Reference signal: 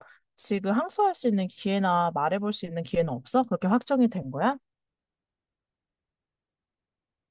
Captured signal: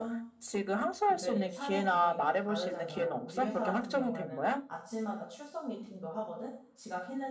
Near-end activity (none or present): present